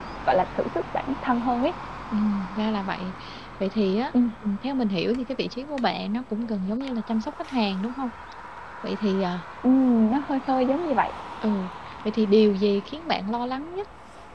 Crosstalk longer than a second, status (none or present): none